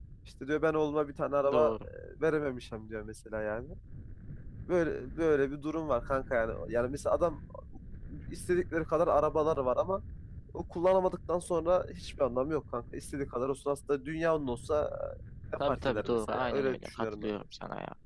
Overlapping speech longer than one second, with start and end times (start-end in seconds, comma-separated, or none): 15.7-17.3